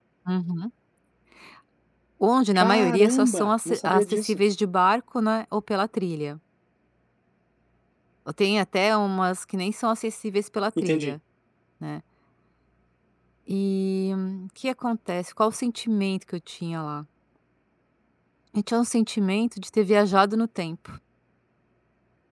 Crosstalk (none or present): present